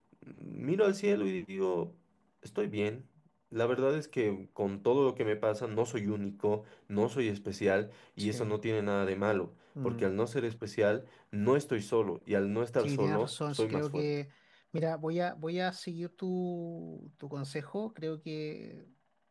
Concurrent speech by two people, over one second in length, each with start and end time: 12.8-14.1

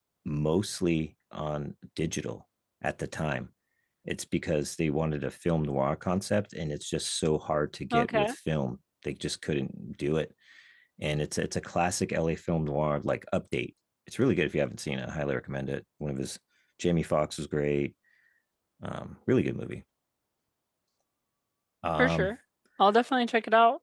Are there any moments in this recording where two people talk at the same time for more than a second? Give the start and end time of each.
none

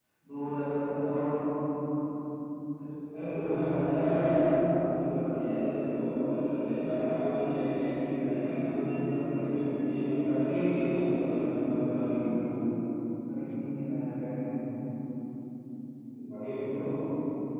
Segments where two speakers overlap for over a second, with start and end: 10.7-12.2

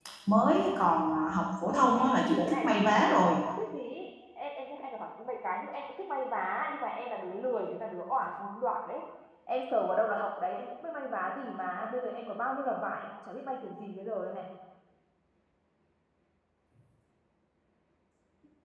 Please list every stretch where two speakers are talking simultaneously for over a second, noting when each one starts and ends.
1.6-3.3

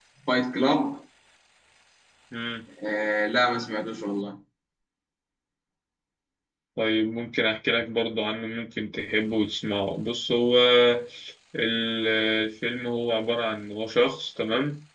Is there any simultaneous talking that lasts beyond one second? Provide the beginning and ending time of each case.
none

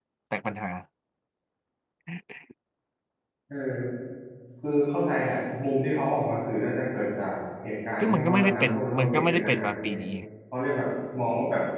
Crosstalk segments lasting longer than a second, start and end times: 8.0-10.0

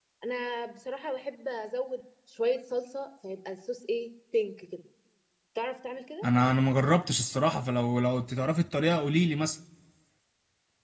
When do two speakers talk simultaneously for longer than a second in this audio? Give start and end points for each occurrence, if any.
none

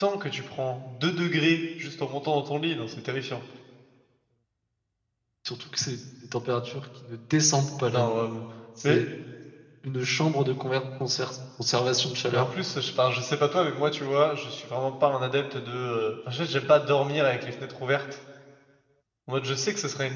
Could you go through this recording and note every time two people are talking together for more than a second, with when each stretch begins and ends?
none

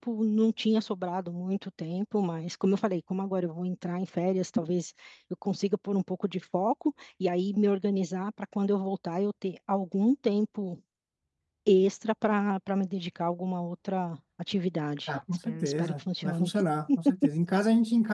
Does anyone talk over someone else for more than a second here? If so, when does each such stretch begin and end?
15.1-16.5

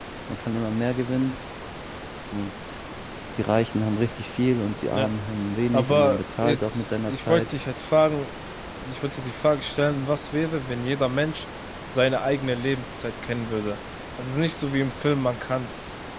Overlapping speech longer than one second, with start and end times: 5.7-7.5

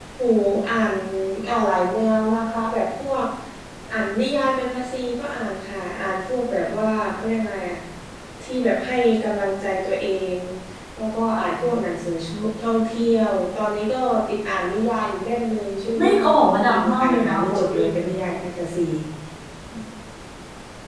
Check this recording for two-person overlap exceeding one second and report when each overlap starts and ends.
16.0-18.3

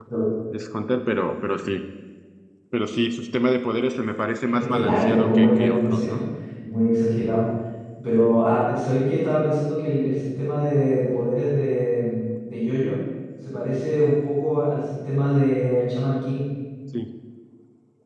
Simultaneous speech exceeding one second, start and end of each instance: 4.6-6.2

